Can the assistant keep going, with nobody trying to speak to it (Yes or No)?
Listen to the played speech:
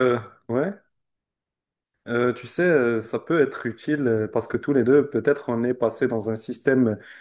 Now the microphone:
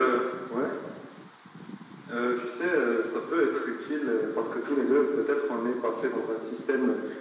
Yes